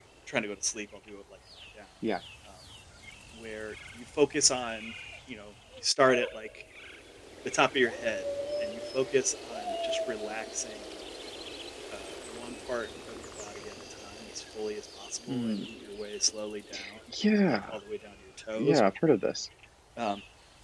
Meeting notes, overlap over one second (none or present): none